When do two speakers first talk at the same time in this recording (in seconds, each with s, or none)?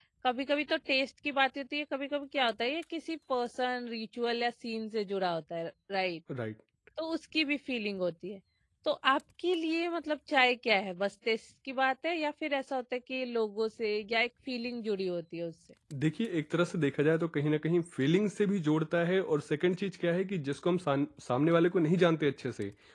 none